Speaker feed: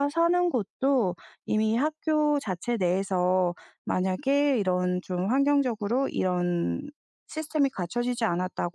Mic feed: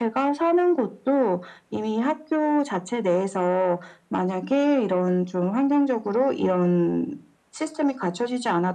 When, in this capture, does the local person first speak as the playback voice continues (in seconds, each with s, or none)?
none